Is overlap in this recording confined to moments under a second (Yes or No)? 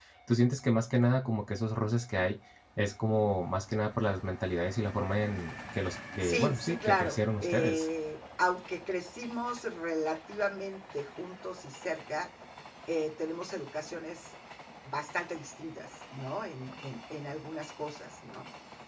No